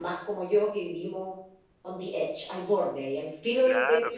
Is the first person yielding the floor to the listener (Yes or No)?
Yes